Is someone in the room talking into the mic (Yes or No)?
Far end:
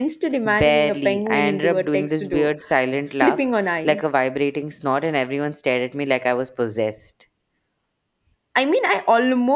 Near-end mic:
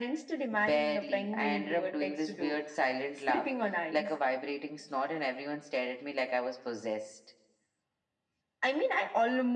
No